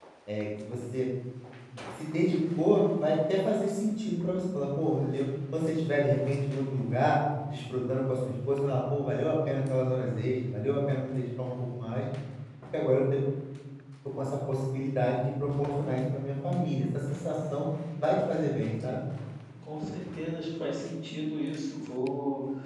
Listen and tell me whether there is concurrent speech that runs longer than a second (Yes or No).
No